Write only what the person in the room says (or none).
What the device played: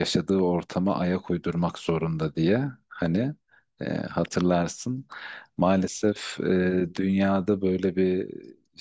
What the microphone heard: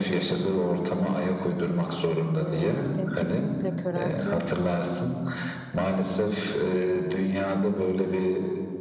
Ee, seni kesinlikle köreltiyor.